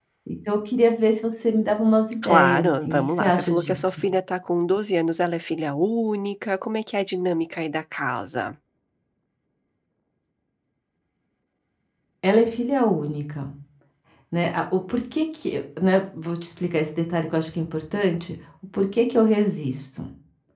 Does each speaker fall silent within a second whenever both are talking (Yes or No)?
No